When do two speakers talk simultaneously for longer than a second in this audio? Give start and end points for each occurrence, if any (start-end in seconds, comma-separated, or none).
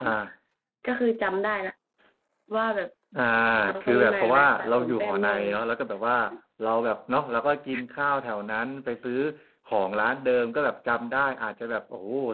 3.8-5.5